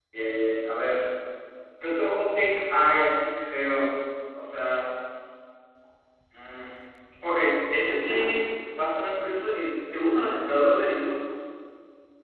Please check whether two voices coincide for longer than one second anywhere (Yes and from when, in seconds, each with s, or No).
No